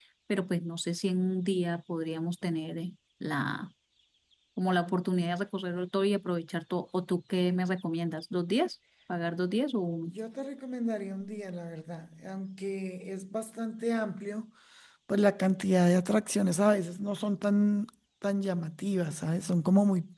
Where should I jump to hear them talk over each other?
none

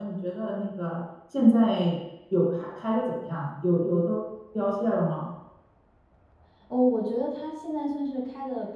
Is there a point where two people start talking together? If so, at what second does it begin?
none

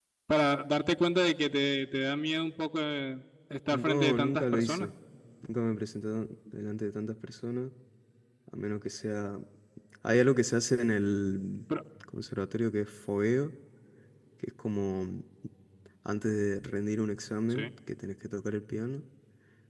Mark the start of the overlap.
3.7 s

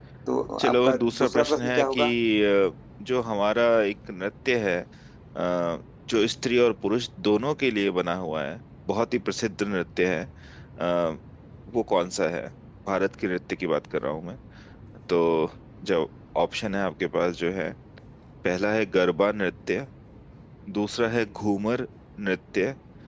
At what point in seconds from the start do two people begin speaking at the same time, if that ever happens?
0.6 s

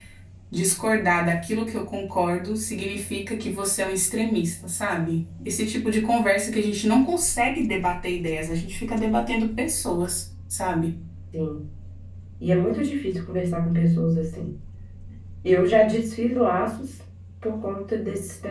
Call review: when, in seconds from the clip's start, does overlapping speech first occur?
none

